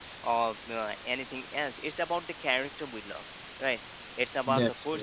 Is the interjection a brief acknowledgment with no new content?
Yes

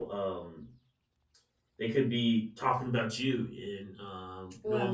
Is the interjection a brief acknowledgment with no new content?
Yes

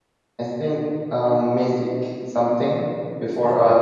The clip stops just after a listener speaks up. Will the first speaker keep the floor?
Yes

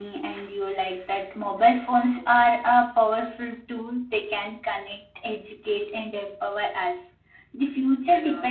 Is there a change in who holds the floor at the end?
No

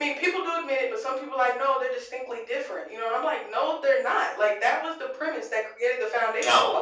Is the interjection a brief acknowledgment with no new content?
Yes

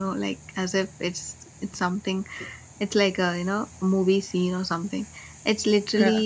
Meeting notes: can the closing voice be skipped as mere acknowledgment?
Yes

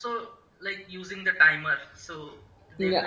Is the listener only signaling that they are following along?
No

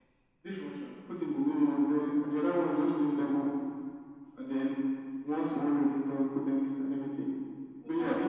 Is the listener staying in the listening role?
Yes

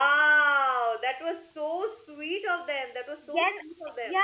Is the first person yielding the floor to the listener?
Yes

